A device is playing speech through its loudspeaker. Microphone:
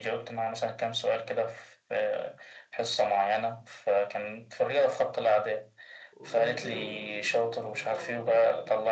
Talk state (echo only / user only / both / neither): both